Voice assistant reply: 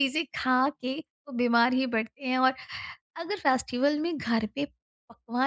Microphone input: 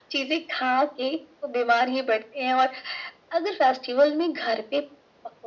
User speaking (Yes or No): No